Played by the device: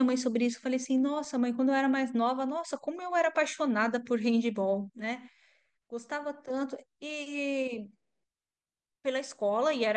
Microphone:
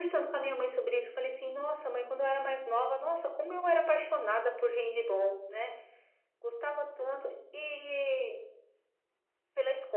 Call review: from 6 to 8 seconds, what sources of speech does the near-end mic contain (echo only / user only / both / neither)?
echo only